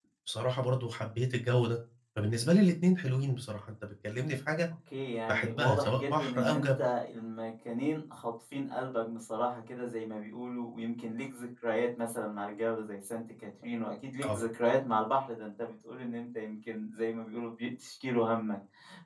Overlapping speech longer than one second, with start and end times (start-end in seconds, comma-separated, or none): 5.3-6.7